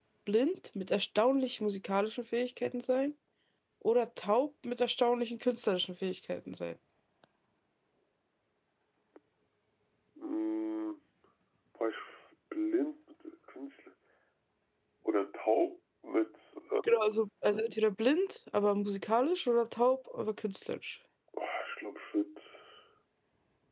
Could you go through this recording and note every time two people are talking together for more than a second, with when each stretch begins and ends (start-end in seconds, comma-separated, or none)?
none